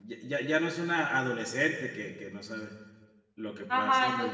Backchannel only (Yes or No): No